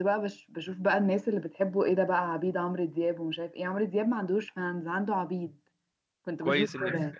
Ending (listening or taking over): taking over